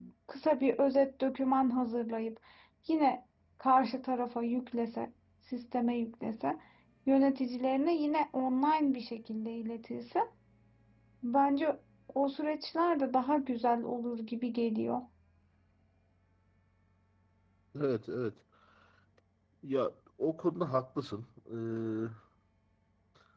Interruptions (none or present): none